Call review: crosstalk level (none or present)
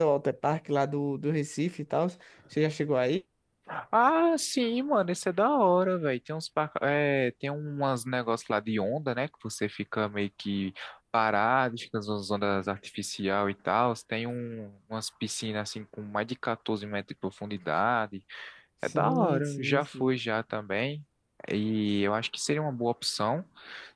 present